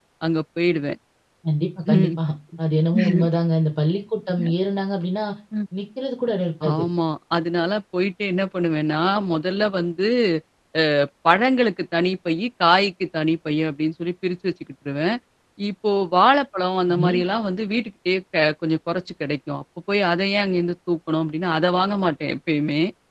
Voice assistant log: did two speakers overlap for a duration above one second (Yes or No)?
No